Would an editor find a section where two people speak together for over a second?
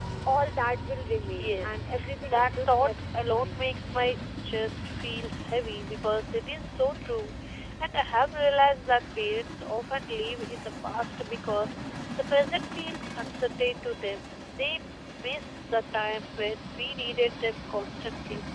Yes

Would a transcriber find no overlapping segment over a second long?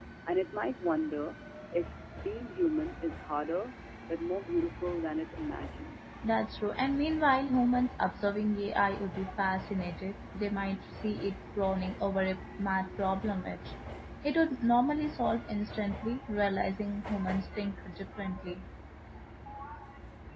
Yes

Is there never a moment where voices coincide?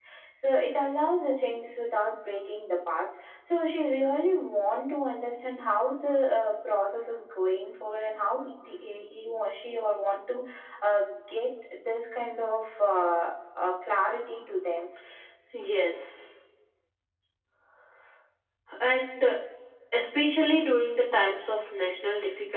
Yes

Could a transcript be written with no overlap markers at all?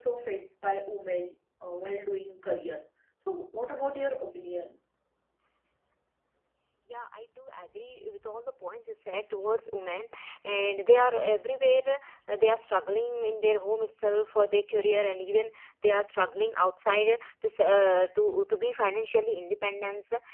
Yes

